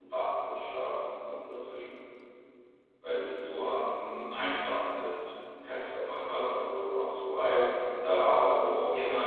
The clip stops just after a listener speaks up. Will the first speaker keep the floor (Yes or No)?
Yes